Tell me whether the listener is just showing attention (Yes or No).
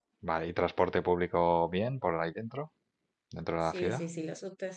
No